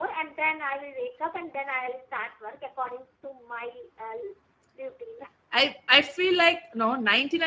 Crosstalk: none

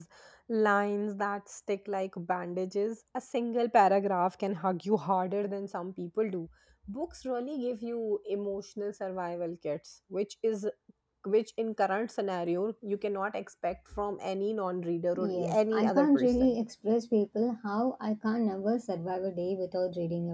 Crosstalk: present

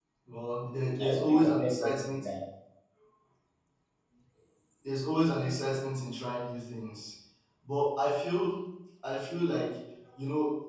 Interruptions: present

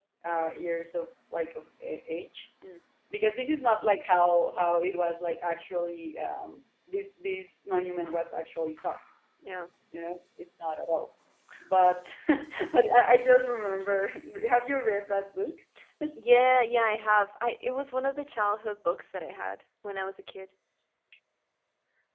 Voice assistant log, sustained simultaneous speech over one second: none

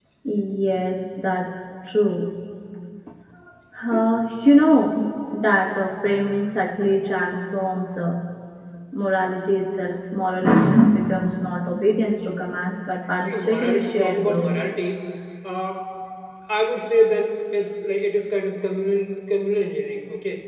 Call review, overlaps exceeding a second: present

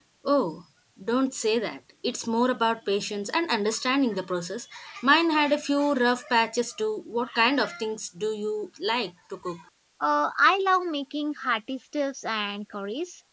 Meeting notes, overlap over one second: none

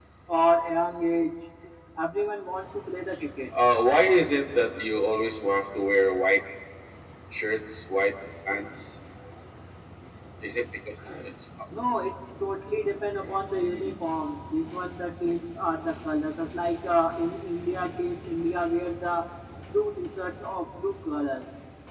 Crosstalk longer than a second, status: none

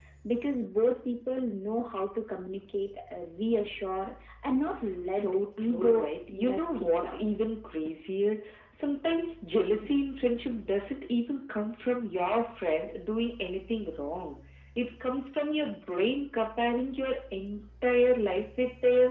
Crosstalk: present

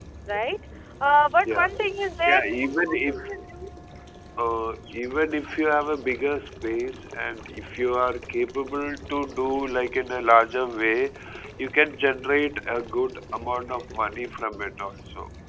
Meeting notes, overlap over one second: none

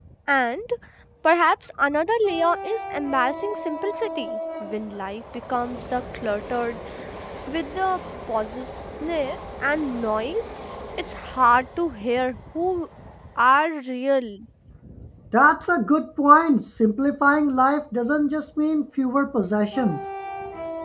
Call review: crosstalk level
none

